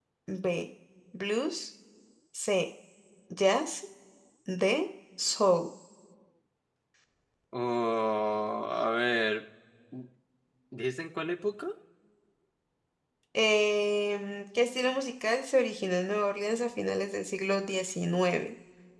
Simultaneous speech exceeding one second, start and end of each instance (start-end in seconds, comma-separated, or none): none